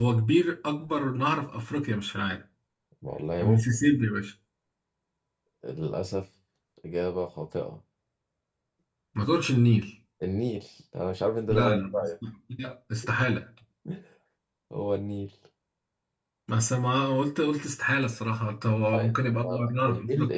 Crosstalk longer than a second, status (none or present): present